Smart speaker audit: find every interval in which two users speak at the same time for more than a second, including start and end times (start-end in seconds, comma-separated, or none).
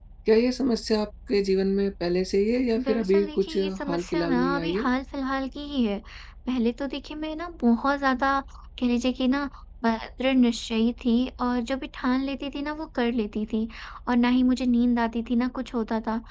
2.8-4.9